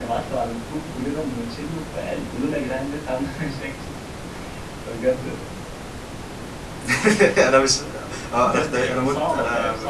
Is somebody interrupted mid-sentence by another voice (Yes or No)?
Yes